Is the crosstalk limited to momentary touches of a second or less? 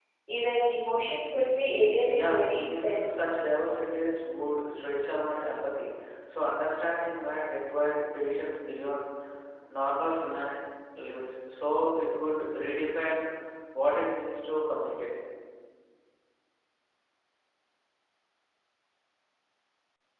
No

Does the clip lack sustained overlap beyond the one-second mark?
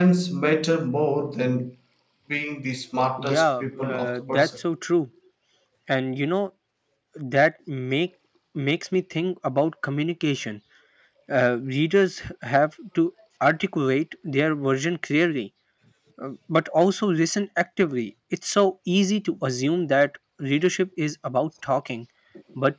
No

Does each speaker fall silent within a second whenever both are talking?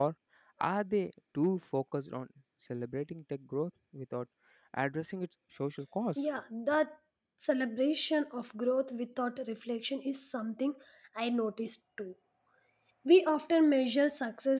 Yes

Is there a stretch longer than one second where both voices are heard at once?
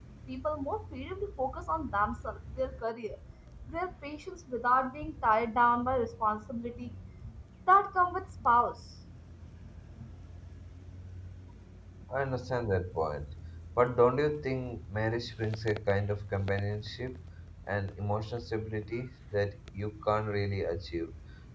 No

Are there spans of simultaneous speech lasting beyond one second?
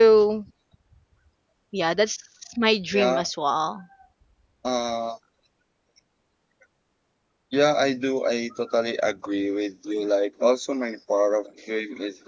No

